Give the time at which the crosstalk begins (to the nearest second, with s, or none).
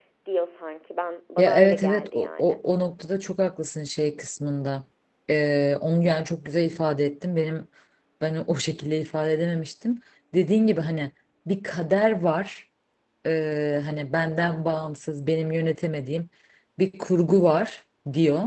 1 s